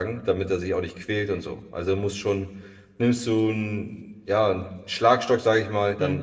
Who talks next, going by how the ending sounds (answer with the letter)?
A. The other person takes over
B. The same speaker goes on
B